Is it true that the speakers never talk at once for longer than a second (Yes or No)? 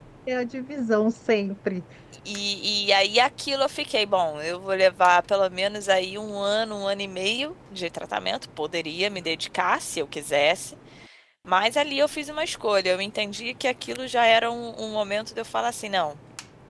Yes